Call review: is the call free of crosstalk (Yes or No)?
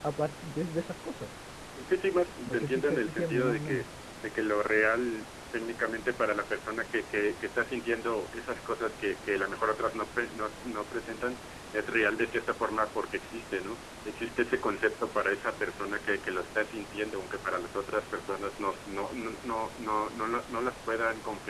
No